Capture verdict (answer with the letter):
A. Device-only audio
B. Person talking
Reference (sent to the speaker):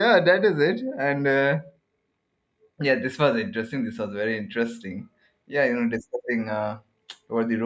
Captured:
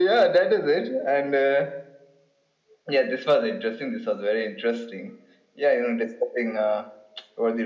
A